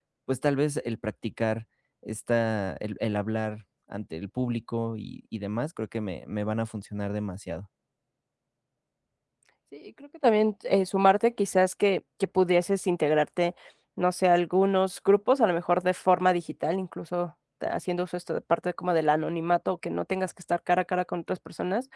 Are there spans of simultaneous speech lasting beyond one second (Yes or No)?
No